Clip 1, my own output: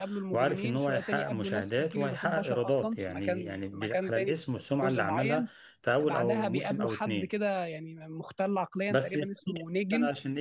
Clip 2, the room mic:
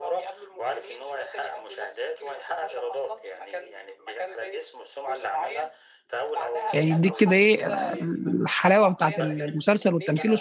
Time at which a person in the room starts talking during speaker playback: 7 s

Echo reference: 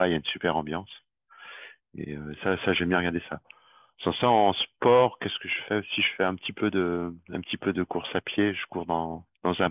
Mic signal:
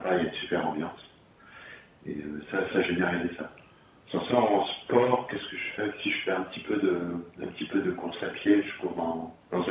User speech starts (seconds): none

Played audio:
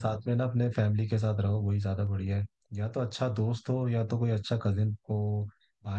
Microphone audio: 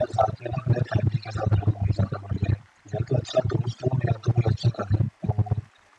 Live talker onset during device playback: none

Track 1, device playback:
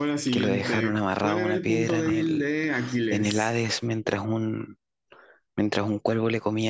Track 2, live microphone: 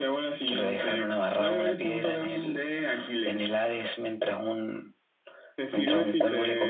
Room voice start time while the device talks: 6 s

